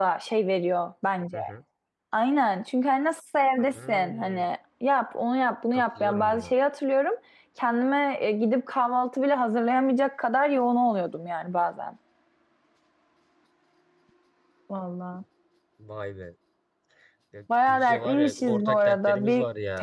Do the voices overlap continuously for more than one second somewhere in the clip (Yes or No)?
Yes